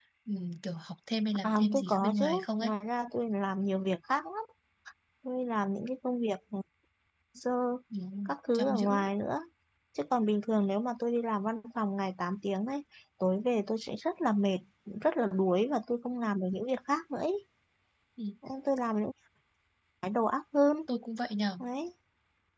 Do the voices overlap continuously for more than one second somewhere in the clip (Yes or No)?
Yes